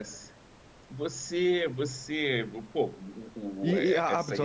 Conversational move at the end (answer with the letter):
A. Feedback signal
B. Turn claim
B